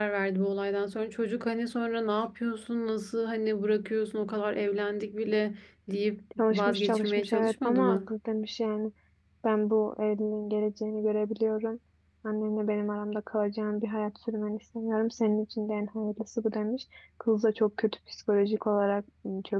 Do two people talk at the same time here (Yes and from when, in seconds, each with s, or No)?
Yes, from 6.4 s